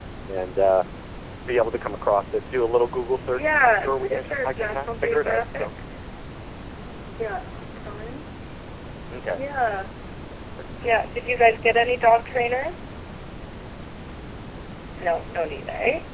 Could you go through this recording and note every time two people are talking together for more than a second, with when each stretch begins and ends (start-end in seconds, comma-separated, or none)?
3.3-5.7